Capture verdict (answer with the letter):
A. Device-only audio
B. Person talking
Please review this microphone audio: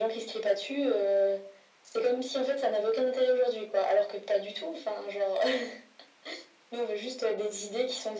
A